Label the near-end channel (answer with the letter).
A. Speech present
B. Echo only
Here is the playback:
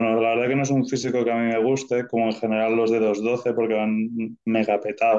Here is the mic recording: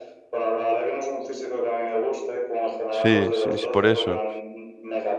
A